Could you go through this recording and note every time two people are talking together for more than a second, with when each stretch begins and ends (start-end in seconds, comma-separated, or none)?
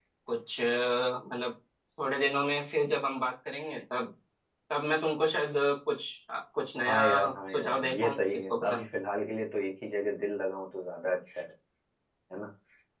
7.5-8.8